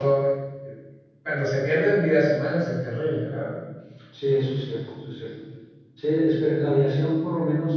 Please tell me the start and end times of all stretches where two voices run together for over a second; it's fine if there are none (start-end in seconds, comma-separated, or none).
none